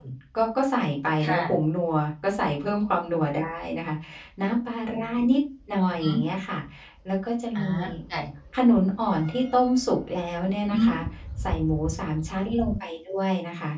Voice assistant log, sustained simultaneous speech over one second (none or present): none